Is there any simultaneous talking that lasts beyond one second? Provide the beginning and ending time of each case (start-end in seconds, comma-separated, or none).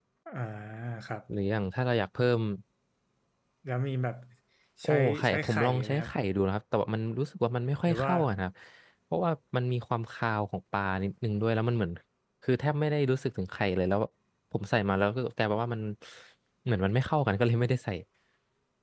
4.8-6.1